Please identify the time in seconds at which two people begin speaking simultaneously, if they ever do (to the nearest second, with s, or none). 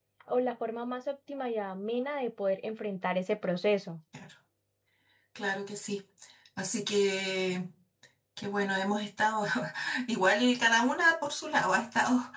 none